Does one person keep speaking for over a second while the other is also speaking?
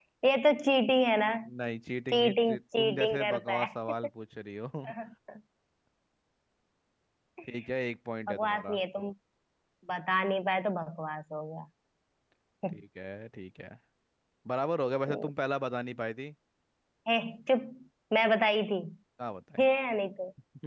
Yes, from 2.1 s

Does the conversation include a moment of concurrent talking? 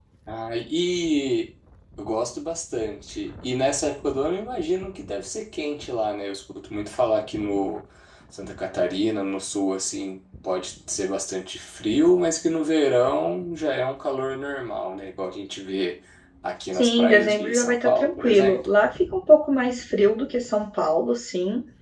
Yes, from 16.7 s

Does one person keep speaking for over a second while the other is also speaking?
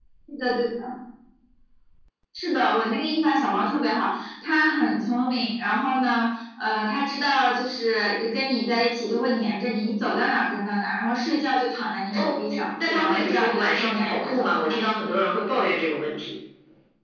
Yes, from 12.1 s

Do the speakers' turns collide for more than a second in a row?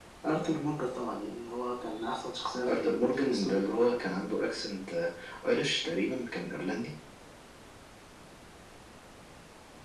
Yes, from 2.6 s

